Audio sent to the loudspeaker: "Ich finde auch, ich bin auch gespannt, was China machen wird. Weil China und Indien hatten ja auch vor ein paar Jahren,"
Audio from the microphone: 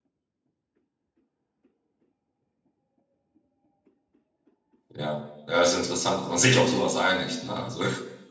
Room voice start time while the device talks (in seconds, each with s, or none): 4.9 s